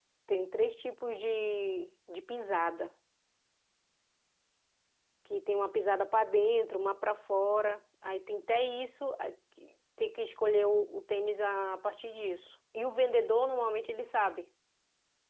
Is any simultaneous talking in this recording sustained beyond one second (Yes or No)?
No